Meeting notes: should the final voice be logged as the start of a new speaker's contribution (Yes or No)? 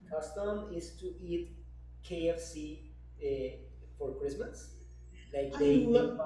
No